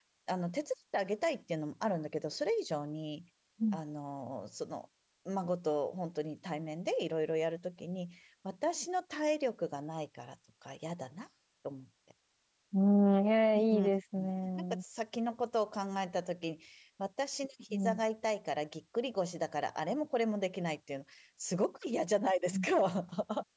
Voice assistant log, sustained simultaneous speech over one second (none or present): none